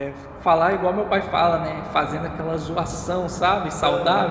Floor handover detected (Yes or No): Yes